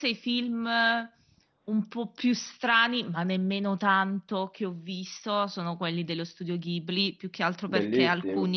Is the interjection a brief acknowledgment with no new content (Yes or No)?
Yes